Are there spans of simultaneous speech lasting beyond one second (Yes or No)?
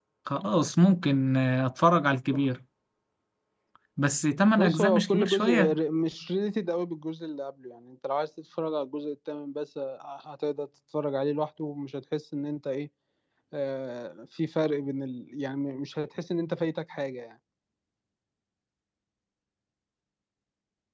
Yes